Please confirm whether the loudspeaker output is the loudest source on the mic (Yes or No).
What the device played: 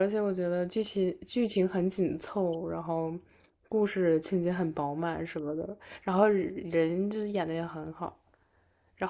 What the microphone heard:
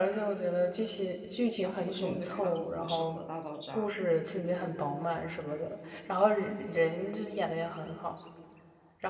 Yes